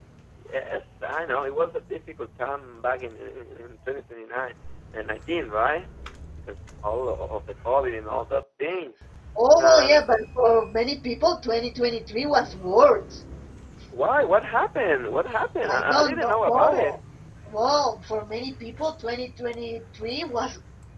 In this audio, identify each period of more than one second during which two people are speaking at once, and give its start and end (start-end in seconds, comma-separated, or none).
15.7-17.0